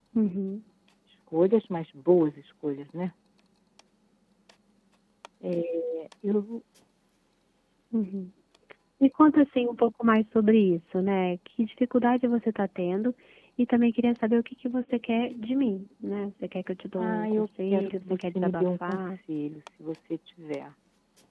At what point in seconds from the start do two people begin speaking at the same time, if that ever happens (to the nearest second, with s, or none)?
17 s